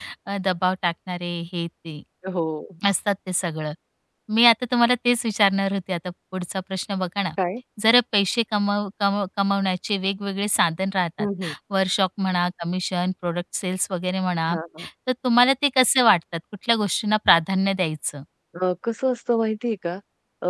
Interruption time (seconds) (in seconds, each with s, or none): none